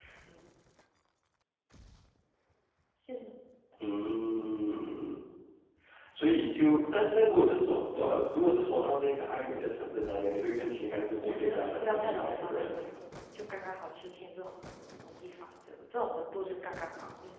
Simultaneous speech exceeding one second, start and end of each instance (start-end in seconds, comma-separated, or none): 11.2-12.9